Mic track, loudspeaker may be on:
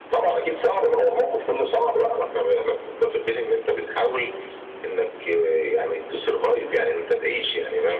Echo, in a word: present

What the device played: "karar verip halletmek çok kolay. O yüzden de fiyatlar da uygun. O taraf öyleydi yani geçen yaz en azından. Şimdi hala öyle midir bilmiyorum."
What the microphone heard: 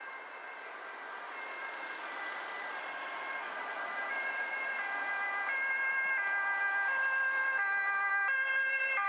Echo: none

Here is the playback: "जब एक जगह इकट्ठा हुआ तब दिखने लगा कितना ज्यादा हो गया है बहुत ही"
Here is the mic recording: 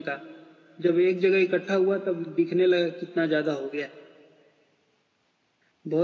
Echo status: present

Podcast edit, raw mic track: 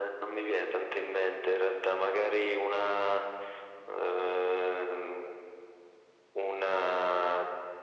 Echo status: present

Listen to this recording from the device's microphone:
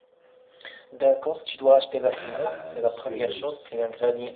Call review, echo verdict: present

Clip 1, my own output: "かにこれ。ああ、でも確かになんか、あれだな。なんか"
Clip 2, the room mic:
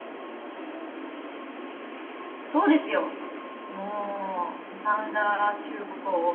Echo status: none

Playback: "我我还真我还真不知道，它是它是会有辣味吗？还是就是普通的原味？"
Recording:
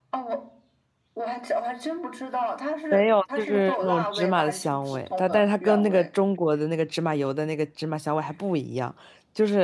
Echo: present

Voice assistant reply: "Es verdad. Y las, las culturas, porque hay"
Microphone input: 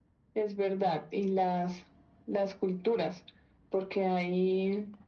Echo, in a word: present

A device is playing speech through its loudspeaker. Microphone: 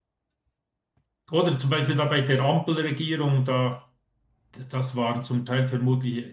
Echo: none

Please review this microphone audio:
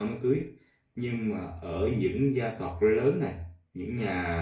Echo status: none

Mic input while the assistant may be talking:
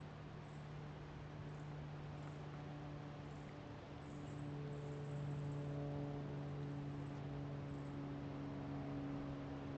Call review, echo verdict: none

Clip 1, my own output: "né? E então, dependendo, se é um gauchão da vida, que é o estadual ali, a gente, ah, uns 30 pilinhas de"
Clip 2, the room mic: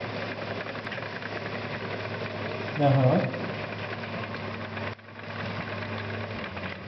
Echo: none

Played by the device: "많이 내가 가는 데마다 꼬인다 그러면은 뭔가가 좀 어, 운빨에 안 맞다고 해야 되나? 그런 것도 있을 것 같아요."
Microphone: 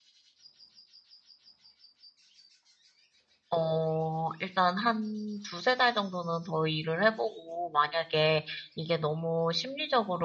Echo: none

